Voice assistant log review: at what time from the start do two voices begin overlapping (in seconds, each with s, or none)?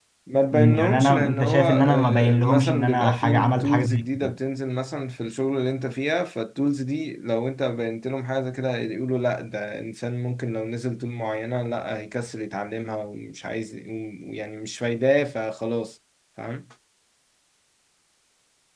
0.5 s